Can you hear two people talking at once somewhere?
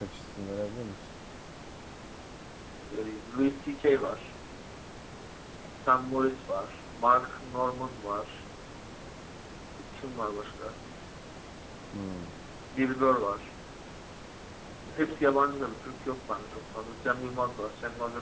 No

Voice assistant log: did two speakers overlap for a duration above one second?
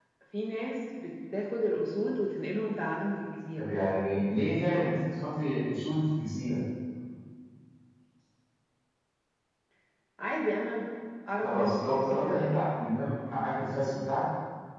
Yes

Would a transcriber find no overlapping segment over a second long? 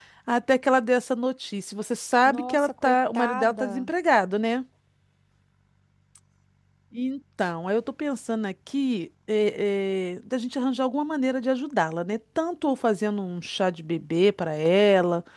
No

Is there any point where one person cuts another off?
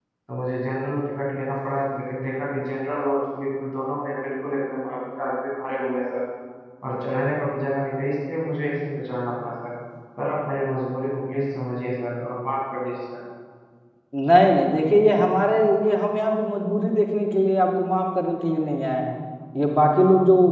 No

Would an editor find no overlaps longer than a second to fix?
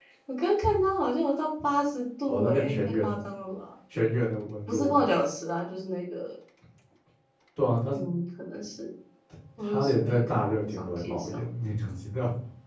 No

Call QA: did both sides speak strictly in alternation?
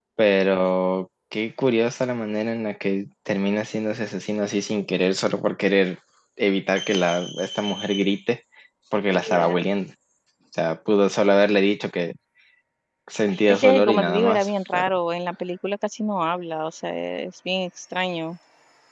No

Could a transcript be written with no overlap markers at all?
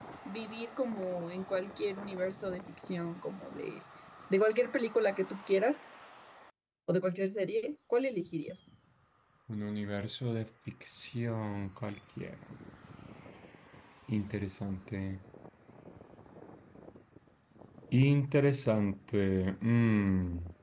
Yes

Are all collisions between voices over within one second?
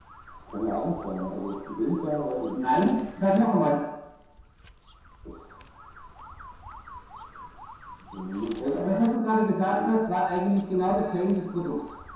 Yes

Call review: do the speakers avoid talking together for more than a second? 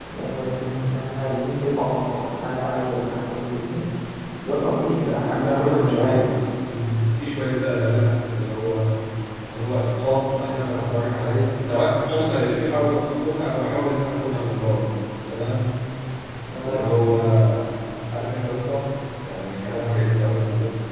No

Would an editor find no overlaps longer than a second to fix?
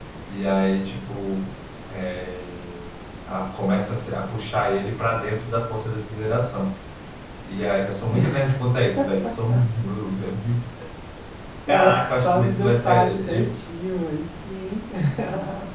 No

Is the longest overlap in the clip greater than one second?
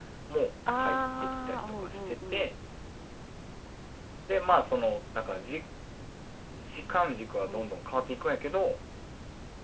Yes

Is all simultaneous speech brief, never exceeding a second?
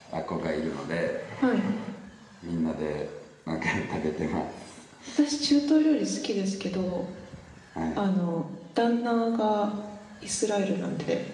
Yes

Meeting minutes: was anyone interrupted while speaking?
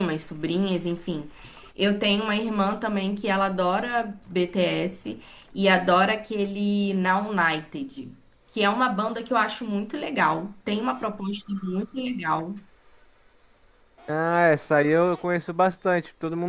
No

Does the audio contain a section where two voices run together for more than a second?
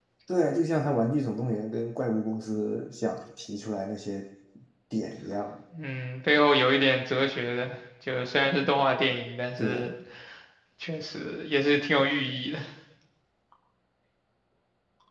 No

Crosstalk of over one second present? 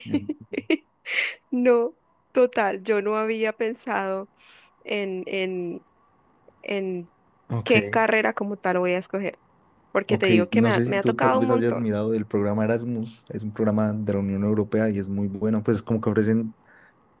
Yes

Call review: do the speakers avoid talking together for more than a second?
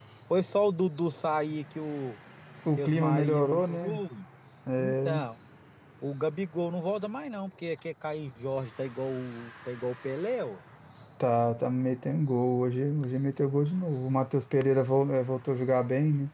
No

